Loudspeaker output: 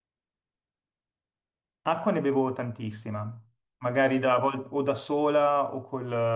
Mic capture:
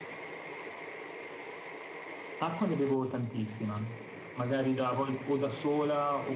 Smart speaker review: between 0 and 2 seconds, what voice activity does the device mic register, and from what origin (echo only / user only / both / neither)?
neither